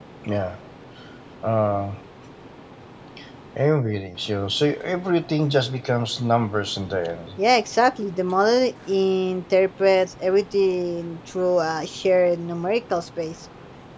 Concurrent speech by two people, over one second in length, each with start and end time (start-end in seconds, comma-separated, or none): none